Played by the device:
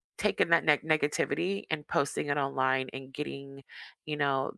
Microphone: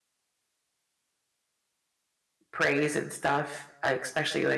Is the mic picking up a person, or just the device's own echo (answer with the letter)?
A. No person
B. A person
B